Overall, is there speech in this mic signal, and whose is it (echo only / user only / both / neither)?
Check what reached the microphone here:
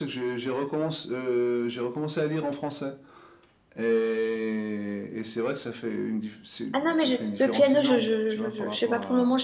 both